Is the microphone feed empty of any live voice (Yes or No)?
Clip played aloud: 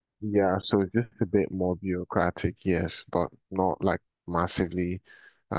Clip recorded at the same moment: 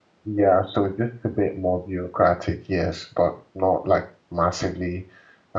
Yes